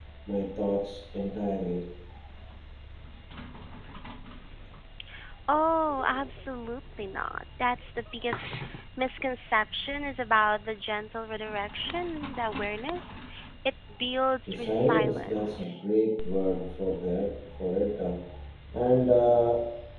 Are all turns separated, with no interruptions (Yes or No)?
No